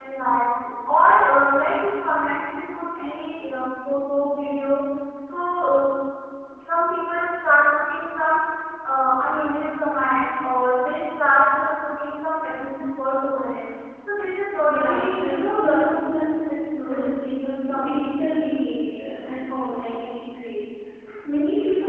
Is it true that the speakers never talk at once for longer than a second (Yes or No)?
No